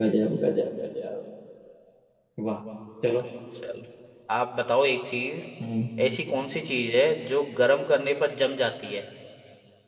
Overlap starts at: none

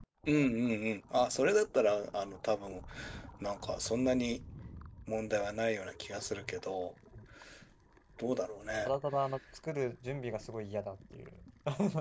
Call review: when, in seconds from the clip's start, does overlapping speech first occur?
none

